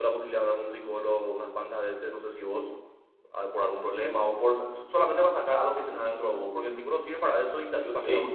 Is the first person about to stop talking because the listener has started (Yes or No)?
No